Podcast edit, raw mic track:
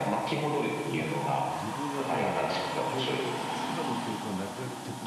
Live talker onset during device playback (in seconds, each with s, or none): 1.0 s